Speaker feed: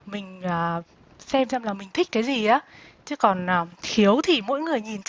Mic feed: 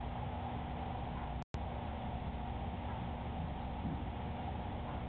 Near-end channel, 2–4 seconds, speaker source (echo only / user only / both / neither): neither